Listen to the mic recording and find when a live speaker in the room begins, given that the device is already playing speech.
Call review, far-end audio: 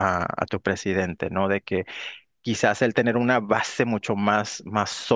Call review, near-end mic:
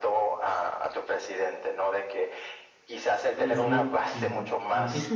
3.3 s

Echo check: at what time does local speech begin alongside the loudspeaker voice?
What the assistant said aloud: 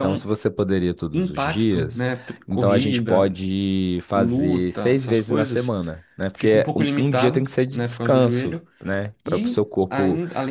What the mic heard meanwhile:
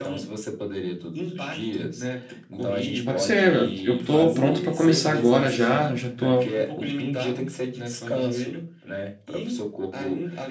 3.0 s

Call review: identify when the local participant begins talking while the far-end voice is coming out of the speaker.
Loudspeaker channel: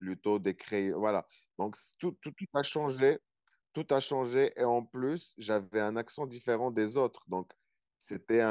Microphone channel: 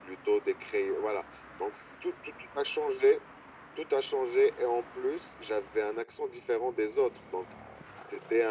none

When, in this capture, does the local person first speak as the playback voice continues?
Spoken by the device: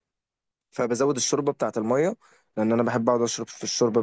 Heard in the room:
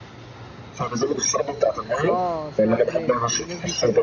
2.0 s

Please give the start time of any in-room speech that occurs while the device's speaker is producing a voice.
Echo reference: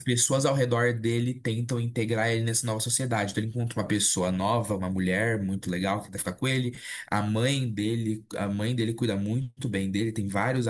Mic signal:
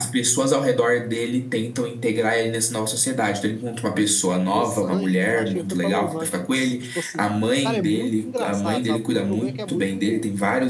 4.4 s

